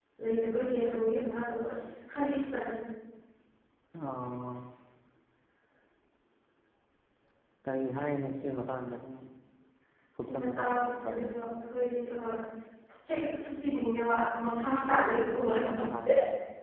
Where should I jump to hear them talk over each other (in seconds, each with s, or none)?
10.3 s